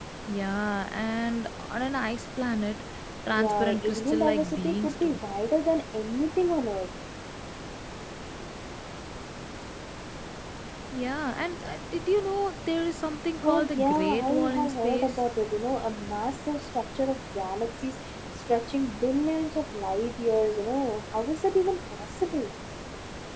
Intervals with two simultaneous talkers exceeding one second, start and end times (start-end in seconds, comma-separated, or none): 3.3-5.2, 13.4-15.2